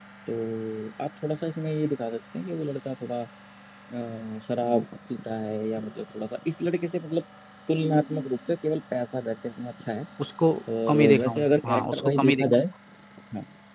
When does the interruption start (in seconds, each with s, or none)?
10.9 s